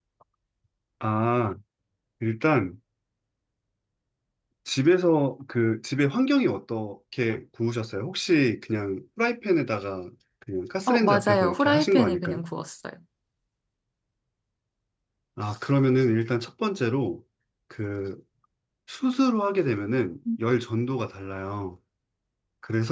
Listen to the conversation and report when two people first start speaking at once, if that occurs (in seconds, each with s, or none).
10.9 s